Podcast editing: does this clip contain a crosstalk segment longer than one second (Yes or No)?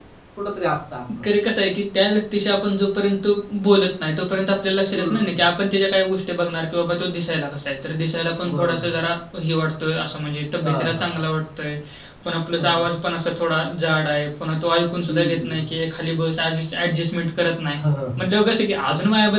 No